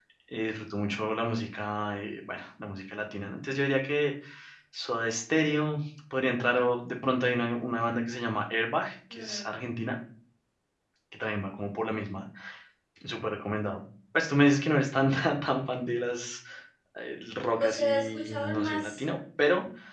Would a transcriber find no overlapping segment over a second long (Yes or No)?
No